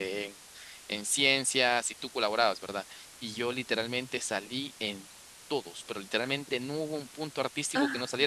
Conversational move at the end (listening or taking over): listening